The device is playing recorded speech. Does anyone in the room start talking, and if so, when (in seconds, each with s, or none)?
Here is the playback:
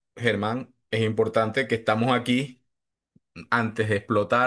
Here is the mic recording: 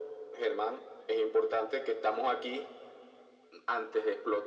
none